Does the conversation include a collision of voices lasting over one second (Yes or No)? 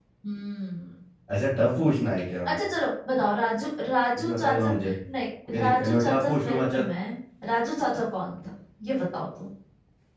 Yes